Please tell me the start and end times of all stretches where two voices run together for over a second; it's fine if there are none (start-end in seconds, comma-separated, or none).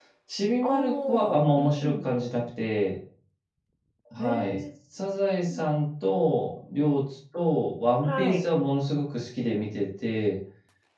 0.6-2.1